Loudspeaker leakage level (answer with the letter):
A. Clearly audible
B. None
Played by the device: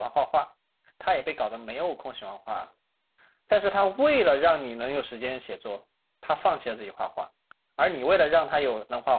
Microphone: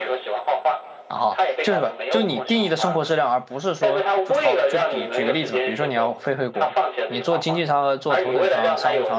A